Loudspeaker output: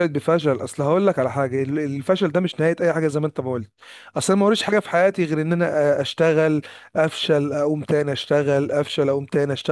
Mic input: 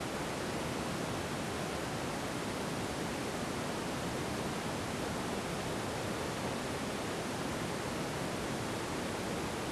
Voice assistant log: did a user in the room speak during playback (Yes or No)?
No